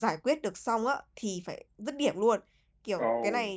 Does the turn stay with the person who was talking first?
Yes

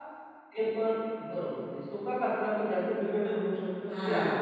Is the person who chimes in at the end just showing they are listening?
No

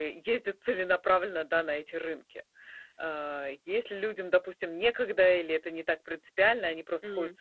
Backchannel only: Yes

